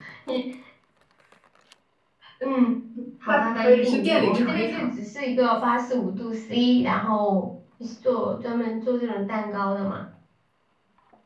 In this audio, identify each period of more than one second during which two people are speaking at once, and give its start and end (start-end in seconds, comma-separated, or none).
3.3-4.9